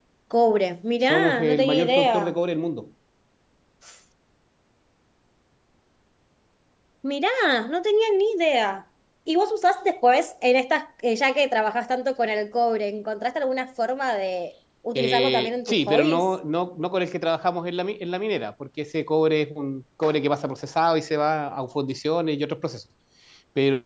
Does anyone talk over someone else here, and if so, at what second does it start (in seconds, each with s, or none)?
1.1 s